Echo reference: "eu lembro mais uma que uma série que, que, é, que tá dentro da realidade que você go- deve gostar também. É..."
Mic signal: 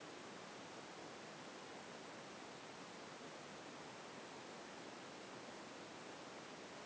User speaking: No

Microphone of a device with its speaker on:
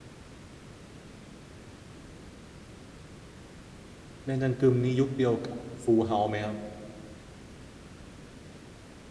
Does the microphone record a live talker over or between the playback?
Yes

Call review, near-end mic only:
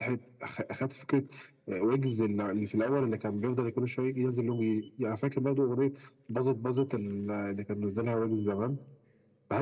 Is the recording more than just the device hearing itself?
No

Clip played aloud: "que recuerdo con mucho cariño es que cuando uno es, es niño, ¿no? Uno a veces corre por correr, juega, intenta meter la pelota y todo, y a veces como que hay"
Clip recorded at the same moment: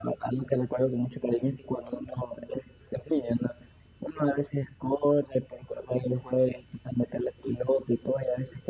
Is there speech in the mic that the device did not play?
No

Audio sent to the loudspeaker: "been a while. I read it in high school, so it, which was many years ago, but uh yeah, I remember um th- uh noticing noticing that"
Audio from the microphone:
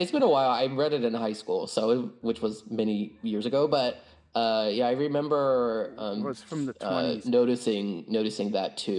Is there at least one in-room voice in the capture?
Yes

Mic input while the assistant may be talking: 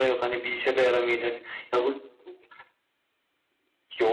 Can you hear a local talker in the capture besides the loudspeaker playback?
No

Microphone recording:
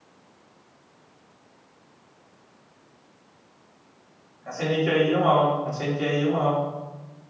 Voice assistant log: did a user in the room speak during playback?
Yes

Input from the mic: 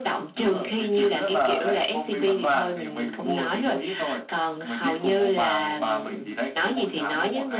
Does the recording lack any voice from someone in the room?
Yes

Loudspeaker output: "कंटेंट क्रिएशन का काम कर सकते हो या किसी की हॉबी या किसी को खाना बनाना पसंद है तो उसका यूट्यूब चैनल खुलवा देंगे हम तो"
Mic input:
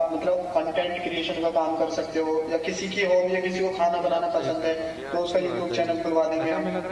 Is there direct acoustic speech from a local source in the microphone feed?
Yes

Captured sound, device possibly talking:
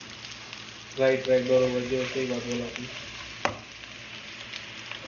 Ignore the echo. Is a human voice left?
Yes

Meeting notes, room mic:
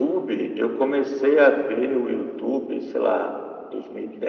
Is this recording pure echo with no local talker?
Yes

